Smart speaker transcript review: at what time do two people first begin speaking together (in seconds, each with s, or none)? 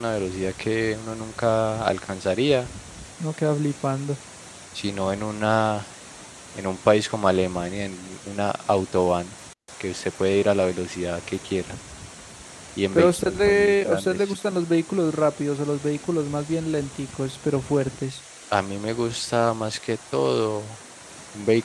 12.9 s